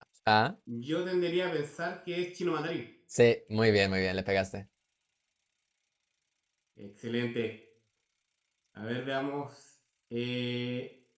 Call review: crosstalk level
none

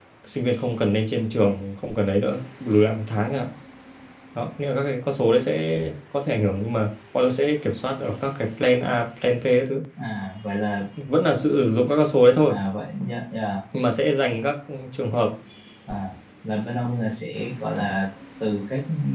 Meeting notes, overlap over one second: none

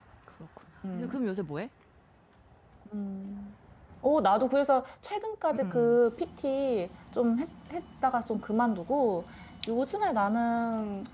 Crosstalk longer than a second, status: none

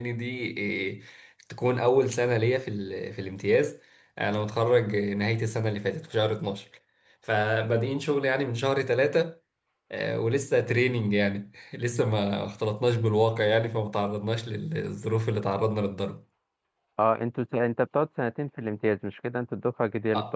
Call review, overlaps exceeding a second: none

